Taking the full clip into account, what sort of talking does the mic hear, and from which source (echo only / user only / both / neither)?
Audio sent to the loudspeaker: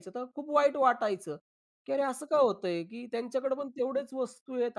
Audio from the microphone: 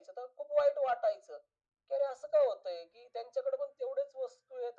echo only